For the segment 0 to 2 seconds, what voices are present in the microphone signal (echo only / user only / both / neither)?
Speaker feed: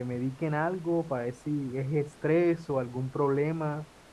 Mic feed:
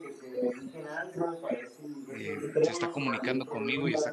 echo only